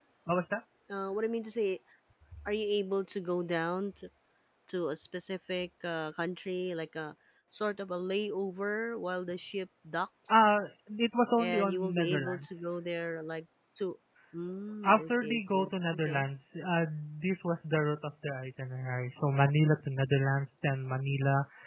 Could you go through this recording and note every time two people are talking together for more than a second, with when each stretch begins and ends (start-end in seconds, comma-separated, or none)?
11.4-12.8, 14.8-16.2